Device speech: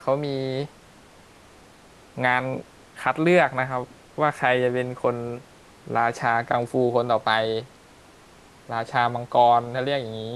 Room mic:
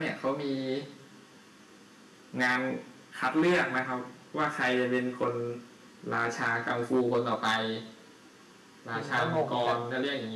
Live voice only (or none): จริงก็งงกับ